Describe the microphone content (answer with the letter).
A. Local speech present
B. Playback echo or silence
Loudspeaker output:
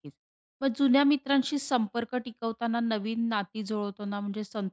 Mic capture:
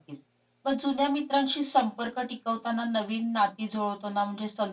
B